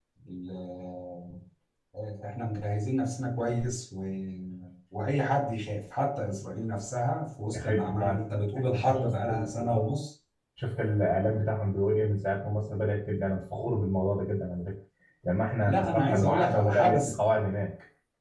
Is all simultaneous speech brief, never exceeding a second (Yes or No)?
No